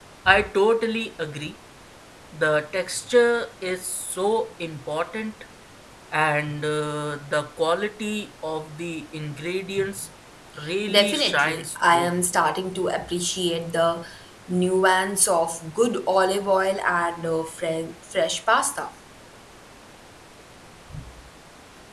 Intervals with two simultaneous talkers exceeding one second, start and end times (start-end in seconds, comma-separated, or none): 10.9-12.1